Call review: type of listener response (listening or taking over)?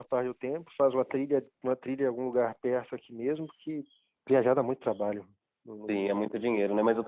taking over